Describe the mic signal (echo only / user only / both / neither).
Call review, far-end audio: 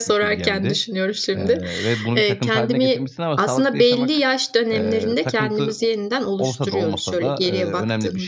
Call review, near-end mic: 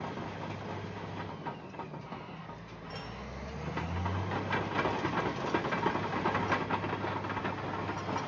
neither